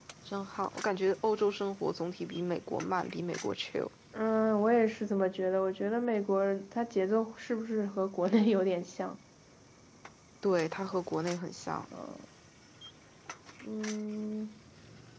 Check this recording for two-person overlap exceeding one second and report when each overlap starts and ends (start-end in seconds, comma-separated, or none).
none